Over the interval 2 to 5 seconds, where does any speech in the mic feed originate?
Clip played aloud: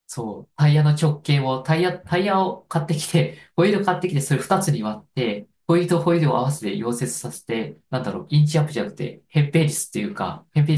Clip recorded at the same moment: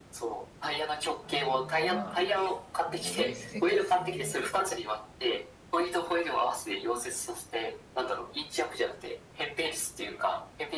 both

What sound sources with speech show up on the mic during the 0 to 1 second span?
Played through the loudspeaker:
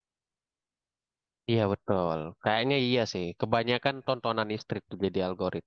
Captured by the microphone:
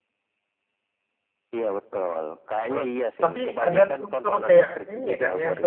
neither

